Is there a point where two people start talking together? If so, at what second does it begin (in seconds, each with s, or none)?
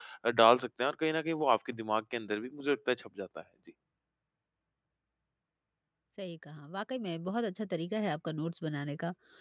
none